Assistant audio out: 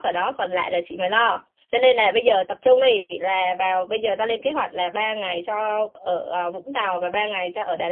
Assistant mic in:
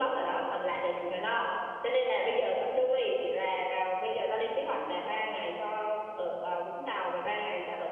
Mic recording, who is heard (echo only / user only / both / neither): echo only